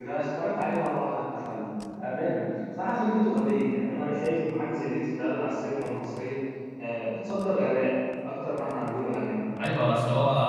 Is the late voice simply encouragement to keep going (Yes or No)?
No